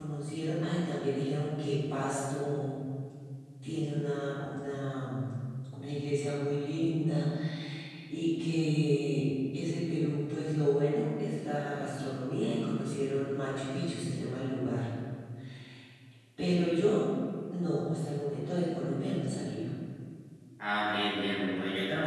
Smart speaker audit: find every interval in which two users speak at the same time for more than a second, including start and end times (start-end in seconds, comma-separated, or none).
none